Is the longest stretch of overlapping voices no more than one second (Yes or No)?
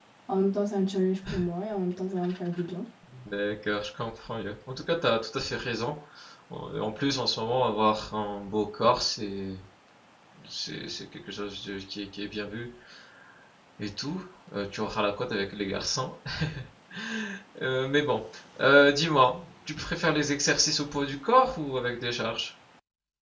Yes